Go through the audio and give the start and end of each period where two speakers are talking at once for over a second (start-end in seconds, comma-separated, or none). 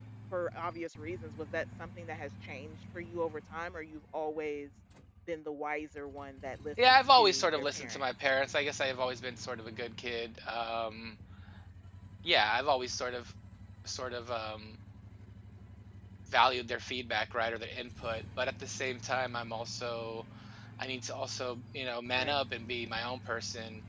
6.8-8.1